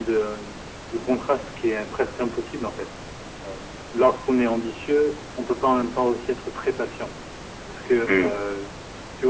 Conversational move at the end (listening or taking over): listening